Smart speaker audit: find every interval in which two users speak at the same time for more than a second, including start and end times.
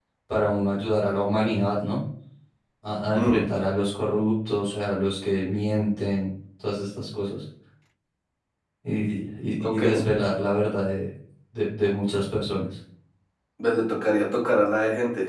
none

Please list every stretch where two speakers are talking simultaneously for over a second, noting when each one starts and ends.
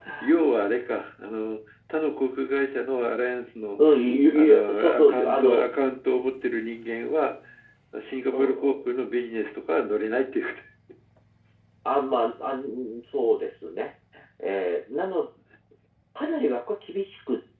4.3-5.7

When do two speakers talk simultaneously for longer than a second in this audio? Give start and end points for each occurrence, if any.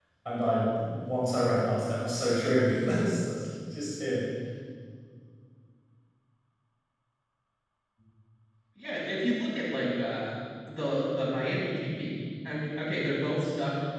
none

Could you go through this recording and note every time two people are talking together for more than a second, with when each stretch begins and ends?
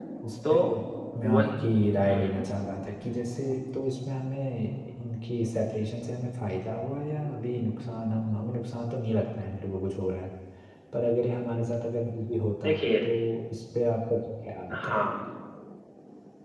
none

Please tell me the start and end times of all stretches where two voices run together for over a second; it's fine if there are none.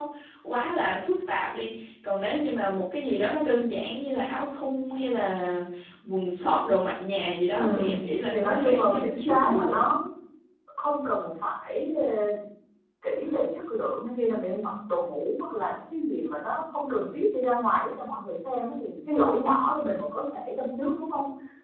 8.3-9.8

